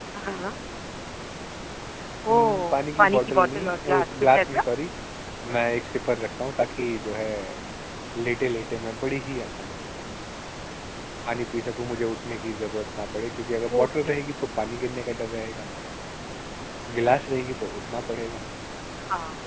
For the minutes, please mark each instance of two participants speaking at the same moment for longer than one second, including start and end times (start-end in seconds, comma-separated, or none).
2.3-4.6